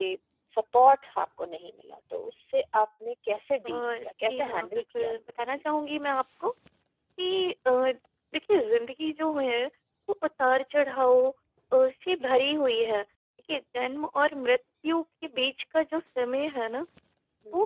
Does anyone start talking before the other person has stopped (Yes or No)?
Yes